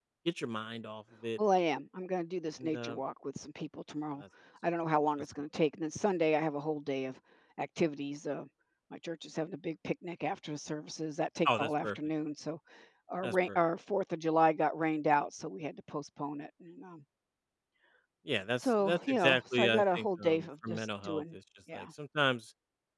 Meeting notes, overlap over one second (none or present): present